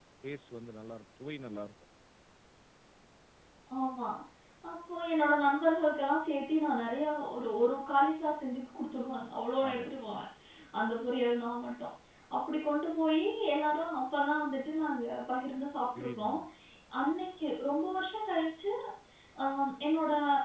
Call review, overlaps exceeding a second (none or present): none